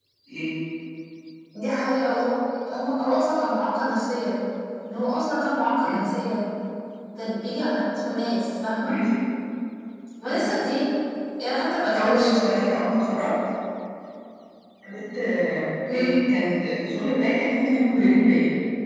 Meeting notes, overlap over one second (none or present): none